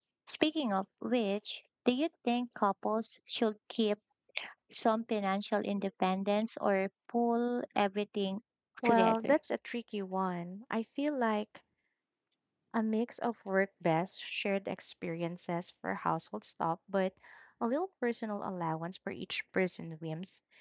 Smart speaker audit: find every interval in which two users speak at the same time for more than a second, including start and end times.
none

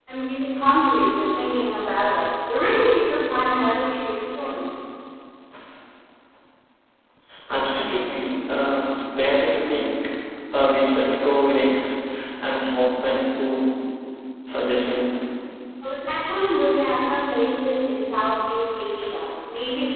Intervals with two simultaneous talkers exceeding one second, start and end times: none

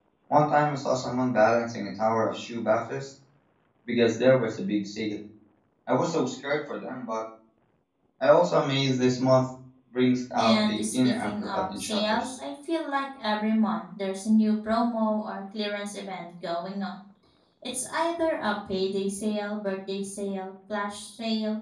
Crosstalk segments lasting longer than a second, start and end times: 10.4-12.3

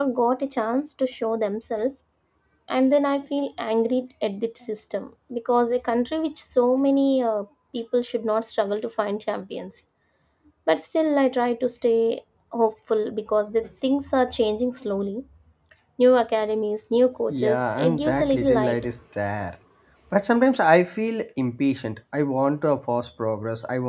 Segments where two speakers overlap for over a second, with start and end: 17.4-18.8

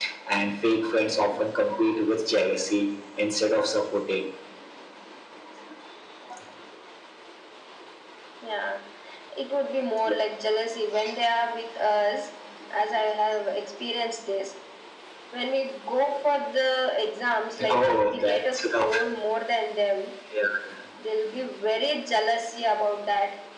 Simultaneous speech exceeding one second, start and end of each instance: 17.7-19.0

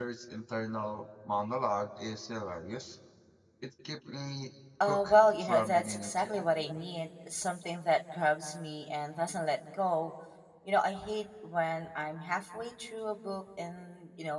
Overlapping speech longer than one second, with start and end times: 4.9-6.5

